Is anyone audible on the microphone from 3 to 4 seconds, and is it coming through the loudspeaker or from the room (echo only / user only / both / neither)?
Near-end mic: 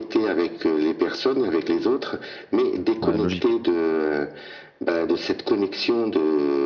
both